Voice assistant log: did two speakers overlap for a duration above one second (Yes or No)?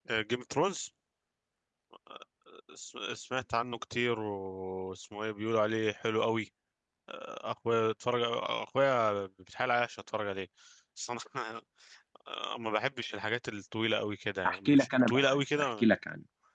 Yes